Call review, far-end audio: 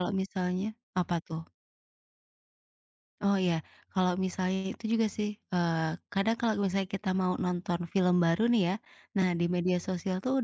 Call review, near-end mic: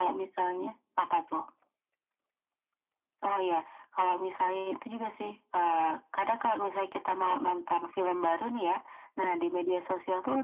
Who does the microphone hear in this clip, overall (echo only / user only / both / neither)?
echo only